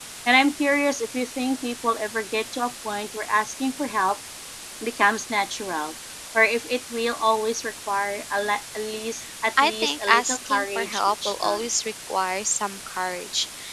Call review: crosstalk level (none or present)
present